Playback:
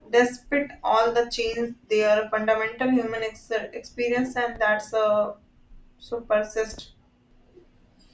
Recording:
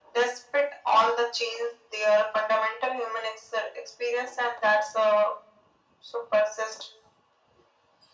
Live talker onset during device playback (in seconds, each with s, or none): none